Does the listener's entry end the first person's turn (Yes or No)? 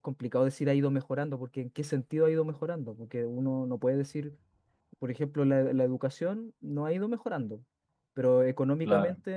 No